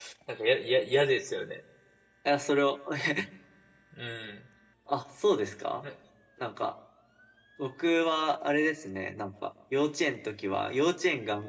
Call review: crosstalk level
none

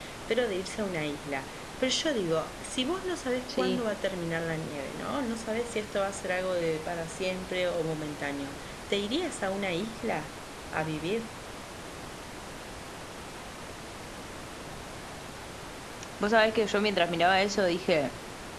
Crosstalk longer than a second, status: none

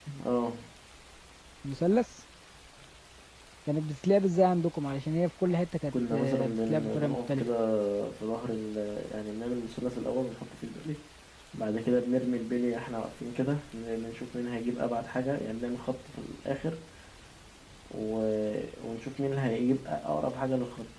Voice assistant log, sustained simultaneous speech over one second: present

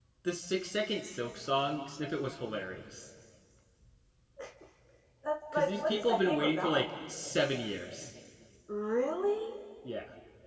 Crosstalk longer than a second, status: present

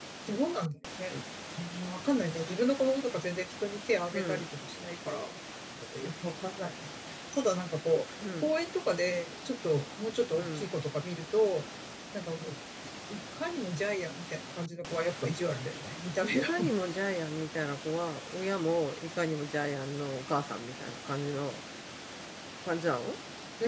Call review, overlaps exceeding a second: none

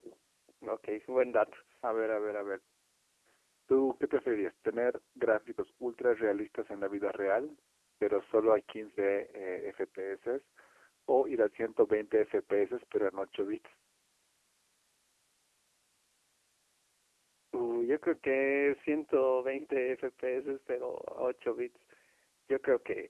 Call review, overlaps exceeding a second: none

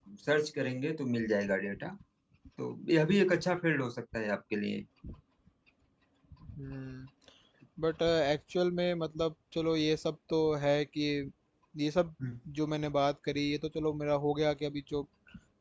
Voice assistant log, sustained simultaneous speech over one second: none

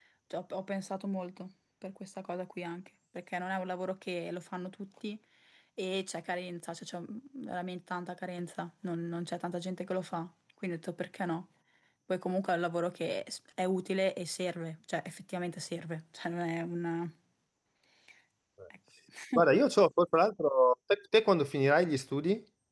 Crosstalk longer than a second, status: none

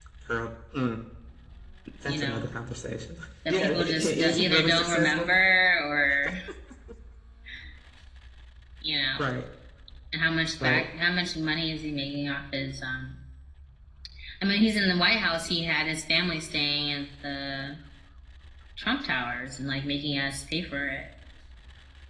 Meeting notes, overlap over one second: present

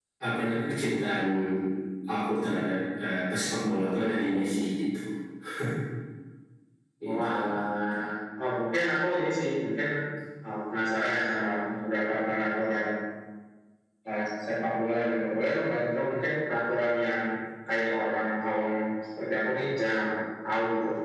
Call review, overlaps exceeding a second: none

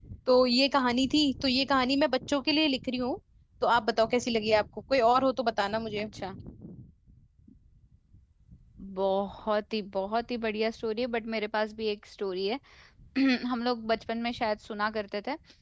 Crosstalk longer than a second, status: none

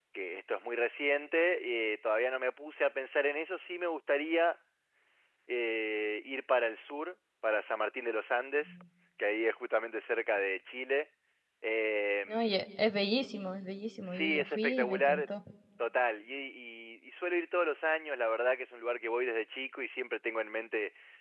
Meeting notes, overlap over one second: present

